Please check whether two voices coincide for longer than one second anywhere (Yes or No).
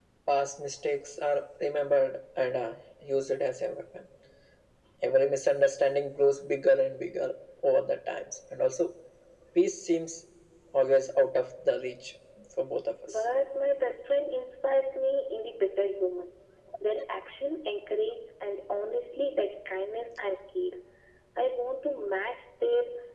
No